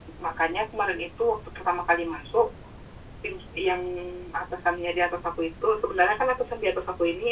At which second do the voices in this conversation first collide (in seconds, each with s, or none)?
none